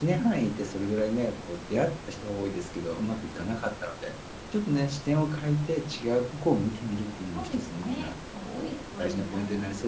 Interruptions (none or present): present